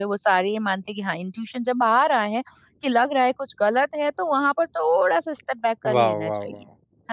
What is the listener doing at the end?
taking over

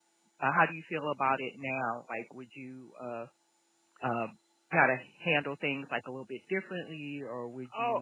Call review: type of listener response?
taking over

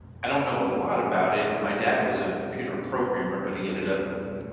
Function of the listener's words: listening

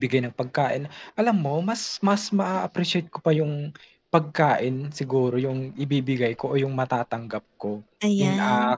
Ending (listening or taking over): listening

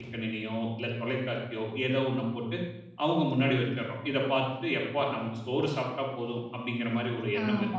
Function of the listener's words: taking over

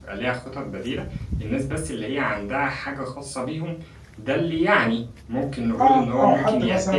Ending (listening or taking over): taking over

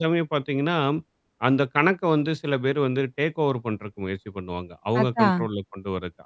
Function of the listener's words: listening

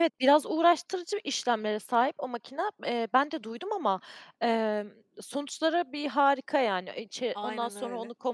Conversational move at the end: listening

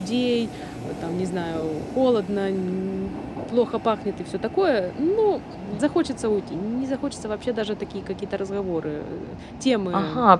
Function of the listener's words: taking over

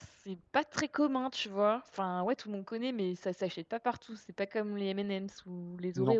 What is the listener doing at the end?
taking over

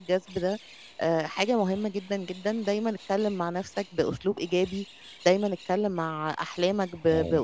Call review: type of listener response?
listening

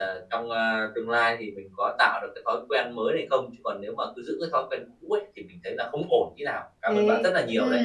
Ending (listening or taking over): taking over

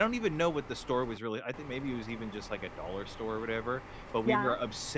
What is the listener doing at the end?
listening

